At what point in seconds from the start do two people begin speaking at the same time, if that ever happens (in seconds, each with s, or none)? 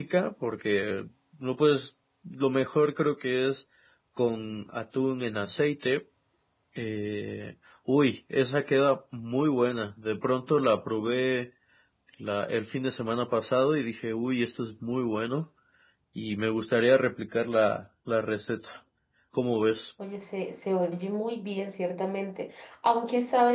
none